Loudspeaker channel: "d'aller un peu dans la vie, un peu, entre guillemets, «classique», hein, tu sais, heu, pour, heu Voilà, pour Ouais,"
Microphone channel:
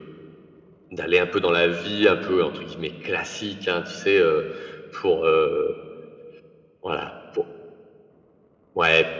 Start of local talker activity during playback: none

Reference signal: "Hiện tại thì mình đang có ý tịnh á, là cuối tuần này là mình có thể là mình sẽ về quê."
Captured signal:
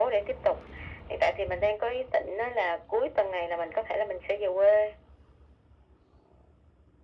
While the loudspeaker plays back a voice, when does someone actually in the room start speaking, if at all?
none

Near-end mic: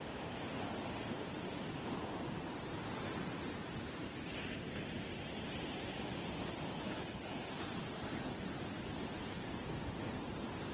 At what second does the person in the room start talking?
none

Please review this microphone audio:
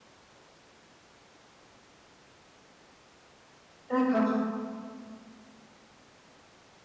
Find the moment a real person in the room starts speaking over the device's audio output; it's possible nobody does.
3.9 s

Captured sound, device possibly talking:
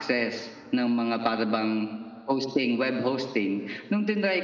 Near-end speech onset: none

